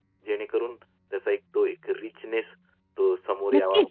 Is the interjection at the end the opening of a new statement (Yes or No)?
Yes